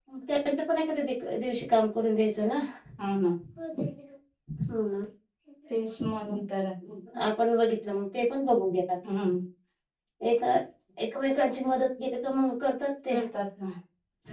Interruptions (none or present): none